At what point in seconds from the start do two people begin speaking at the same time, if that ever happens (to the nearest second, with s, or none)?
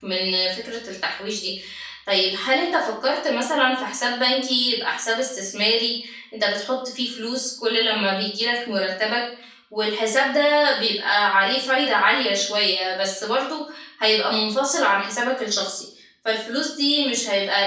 none